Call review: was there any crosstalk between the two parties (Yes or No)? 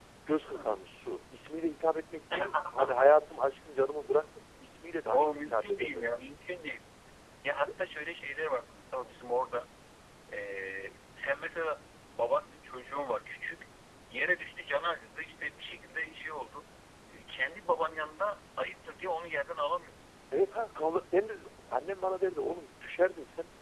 Yes